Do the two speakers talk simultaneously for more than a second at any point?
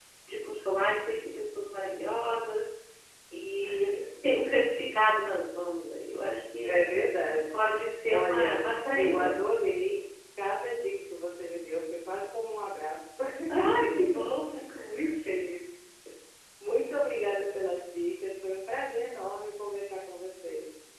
Yes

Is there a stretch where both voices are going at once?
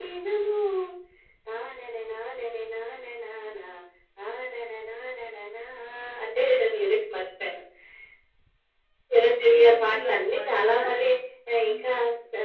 Yes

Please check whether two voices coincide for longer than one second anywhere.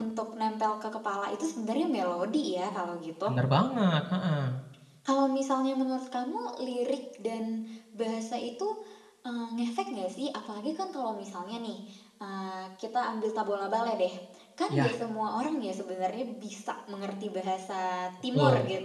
No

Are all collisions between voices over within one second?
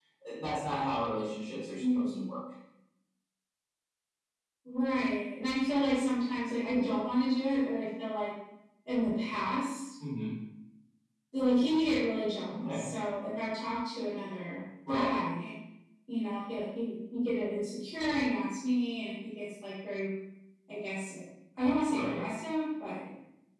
Yes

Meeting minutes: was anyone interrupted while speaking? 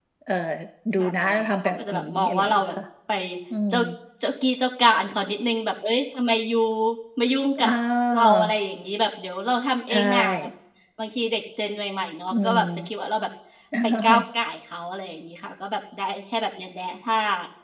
Yes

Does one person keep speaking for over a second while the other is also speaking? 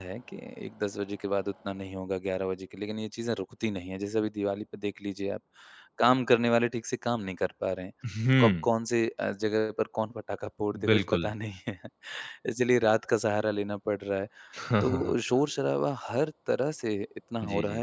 No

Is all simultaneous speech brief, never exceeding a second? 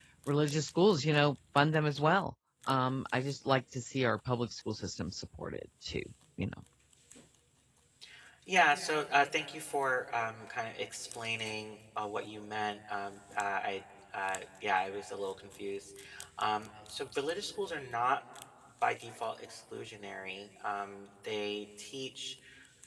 Yes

